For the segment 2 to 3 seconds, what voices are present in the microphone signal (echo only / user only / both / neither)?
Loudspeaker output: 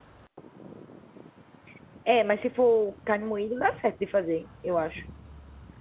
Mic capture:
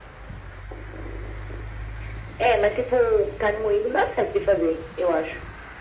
echo only